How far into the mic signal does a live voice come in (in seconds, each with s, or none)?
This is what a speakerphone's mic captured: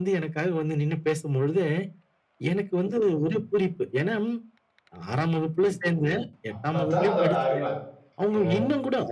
6.5 s